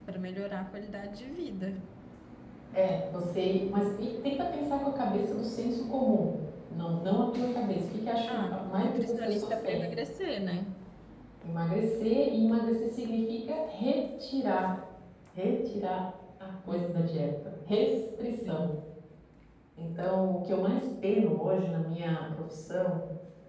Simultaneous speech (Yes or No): Yes